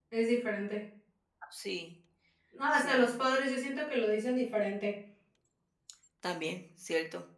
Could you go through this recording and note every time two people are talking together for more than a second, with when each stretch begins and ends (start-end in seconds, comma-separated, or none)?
none